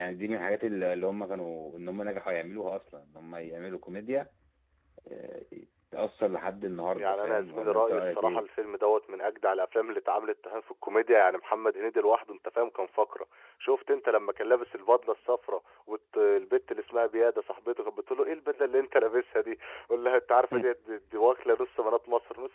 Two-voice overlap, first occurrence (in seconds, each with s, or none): 6.9 s